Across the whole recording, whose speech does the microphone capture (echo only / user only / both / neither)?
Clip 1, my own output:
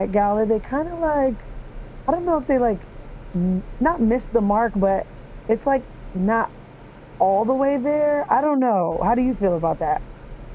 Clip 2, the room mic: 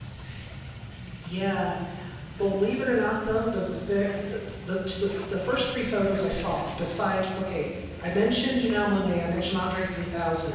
user only